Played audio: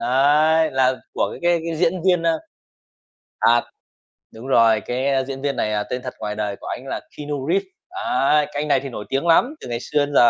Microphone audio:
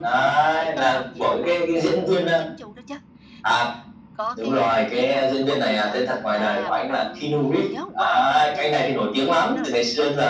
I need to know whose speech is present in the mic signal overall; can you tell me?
both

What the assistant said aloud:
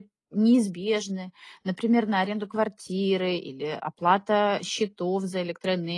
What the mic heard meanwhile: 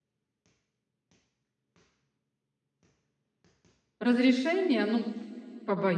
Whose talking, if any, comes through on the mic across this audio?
user only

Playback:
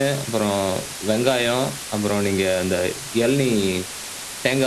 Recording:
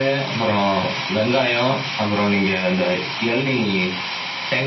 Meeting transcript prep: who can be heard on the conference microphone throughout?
echo only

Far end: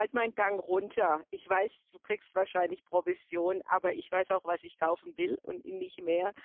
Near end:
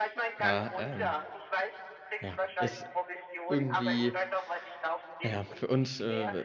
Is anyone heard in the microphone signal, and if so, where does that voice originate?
both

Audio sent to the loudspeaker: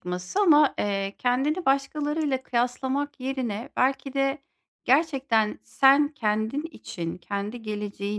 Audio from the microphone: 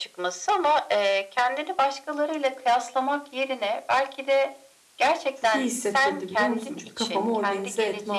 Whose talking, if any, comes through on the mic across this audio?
both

